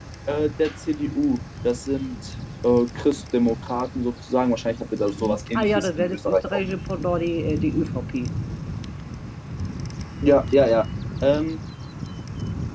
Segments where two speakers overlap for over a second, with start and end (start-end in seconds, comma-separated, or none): 5.2-6.6